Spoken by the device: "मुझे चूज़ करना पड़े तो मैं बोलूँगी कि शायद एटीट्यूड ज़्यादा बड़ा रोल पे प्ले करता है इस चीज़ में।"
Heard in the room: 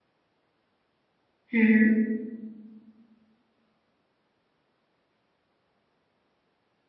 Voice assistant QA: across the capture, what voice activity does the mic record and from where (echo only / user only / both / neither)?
user only